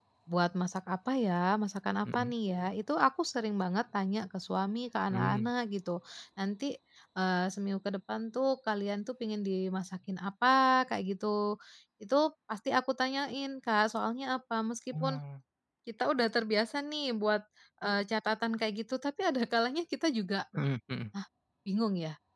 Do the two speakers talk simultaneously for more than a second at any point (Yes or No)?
No